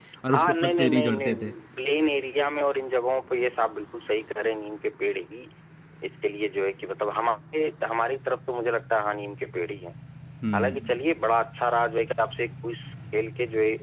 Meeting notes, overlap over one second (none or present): present